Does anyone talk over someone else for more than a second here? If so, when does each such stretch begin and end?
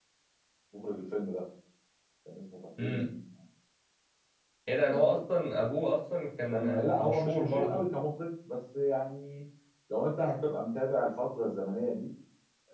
6.5-7.8

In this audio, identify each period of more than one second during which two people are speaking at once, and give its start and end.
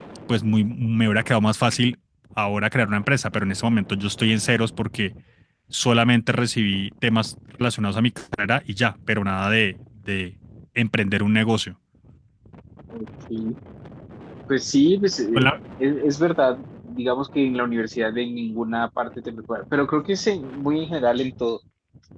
none

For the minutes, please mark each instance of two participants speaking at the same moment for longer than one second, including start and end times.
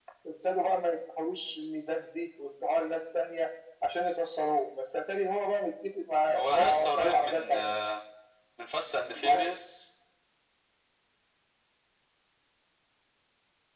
6.4-7.7

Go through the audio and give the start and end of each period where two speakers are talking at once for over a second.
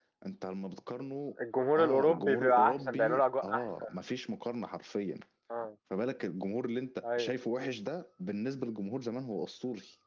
1.8-3.8

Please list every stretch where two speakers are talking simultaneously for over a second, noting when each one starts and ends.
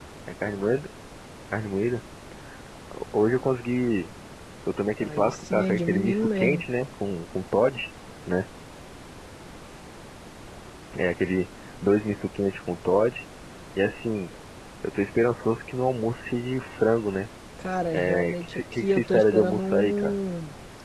5.0-6.6, 17.9-20.1

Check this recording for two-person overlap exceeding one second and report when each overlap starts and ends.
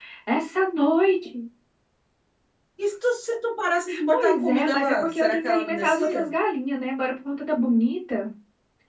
4.1-6.3

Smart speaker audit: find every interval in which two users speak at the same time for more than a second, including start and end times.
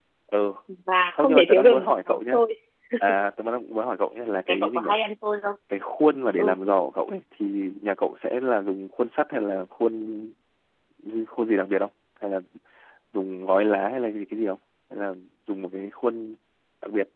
1.1-2.4

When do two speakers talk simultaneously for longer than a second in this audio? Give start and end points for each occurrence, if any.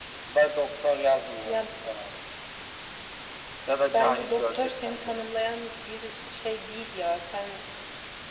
3.9-5.3

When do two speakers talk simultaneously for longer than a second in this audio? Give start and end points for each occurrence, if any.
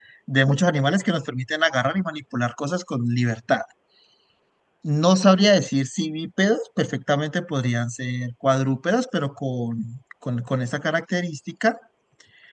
none

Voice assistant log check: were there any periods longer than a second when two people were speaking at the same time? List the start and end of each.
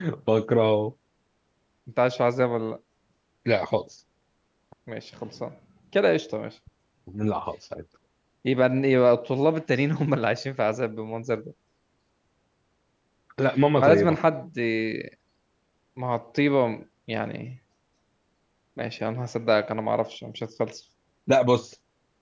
none

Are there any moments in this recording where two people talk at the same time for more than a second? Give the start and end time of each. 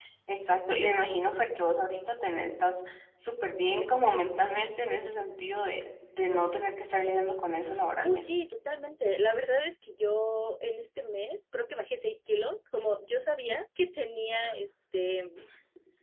none

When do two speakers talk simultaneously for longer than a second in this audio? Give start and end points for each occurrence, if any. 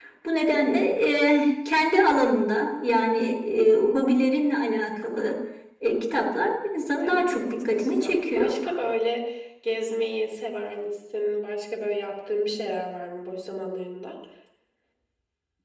7.0-8.5

